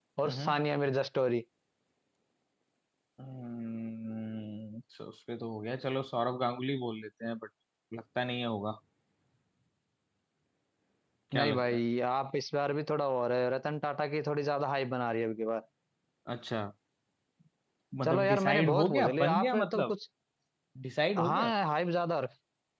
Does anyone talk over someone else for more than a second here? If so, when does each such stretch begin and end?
18.0-19.9

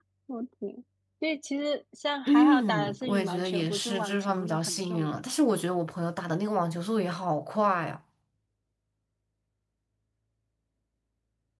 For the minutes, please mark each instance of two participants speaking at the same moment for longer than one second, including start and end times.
2.3-5.2

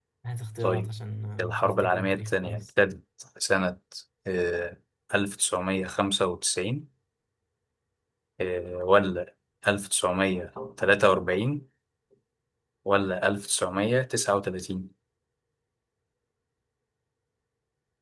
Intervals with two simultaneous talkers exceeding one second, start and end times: 1.4-2.6

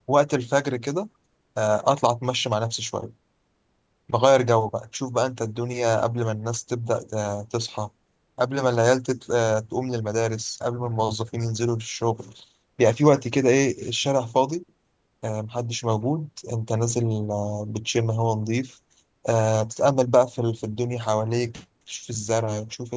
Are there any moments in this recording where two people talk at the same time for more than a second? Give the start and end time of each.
none

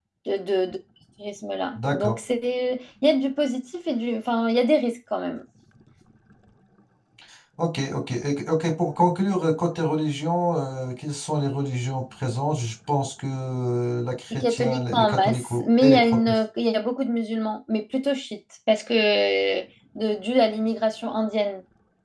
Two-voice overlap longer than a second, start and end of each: 14.3-16.4

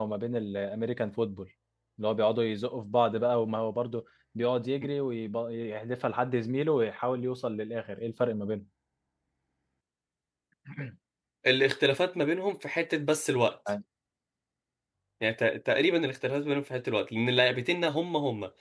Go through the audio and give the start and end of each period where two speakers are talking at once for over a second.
none

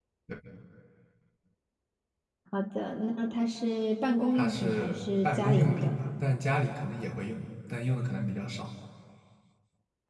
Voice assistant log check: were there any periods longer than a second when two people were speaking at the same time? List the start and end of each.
4.3-5.9

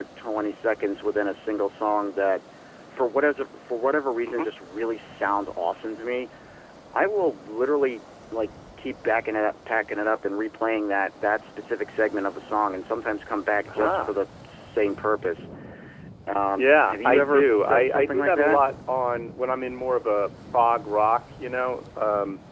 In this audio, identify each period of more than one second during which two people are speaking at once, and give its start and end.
16.6-18.6

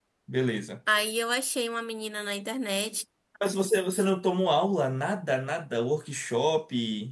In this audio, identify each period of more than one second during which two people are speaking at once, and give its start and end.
none

